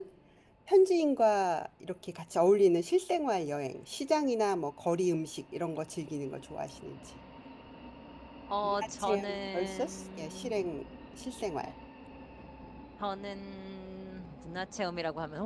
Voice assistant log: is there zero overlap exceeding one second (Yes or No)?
No